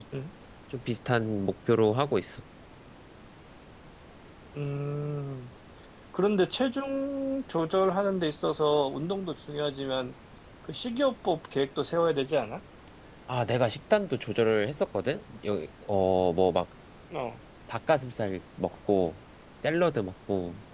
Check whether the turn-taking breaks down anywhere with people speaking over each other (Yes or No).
No